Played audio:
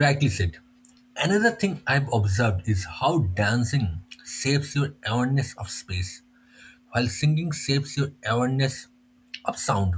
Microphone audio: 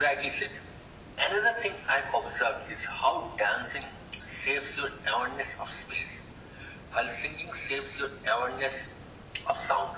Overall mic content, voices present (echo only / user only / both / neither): echo only